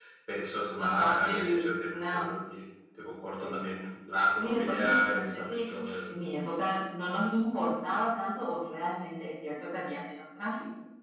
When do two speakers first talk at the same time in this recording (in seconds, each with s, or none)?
0.8 s